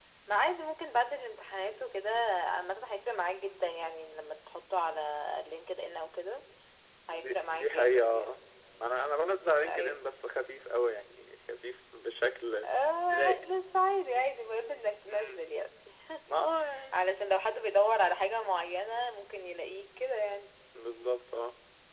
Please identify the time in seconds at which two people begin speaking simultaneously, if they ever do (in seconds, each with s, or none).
7.1 s